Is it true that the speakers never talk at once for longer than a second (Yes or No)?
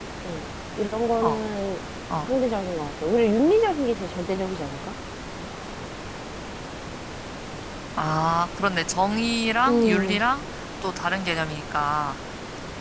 Yes